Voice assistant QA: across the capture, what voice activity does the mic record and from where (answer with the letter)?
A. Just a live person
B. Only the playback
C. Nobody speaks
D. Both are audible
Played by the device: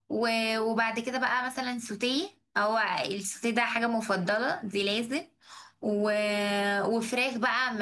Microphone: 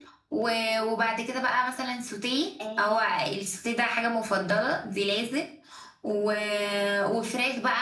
D